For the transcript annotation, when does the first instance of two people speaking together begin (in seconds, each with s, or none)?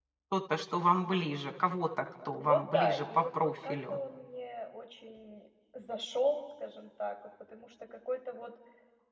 2.3 s